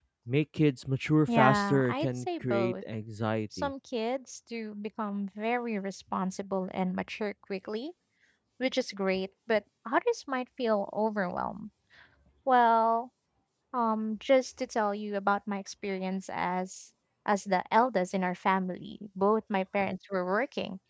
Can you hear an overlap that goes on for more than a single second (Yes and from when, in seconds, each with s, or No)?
Yes, from 1.3 s